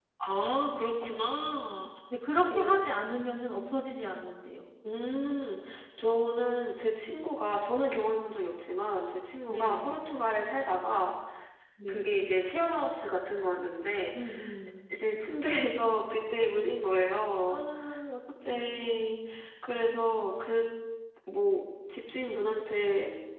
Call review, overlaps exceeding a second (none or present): none